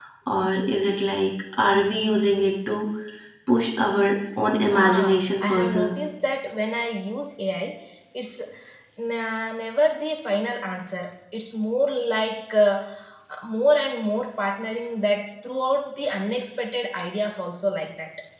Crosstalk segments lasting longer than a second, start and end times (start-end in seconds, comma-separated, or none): 4.7-5.9